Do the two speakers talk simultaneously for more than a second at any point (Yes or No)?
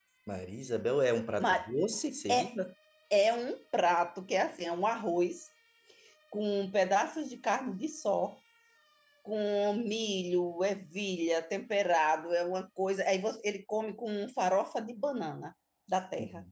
No